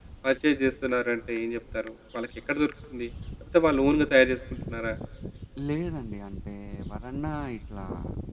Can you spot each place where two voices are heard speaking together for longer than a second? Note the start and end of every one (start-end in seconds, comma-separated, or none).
none